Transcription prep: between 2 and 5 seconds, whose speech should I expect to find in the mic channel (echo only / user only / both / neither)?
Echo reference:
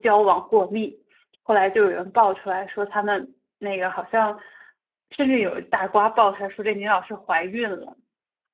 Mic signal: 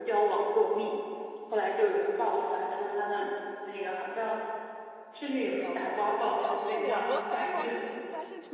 echo only